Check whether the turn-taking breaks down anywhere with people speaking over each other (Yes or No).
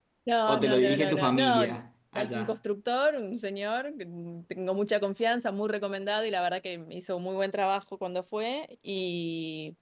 Yes